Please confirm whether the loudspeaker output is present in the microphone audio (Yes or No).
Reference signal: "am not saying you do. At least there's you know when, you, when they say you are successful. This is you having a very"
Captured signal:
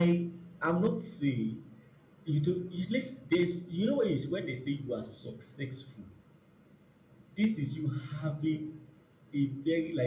Yes